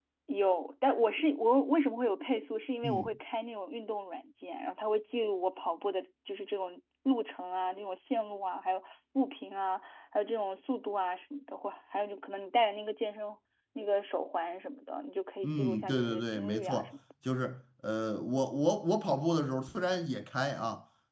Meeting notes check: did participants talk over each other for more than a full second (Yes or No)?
Yes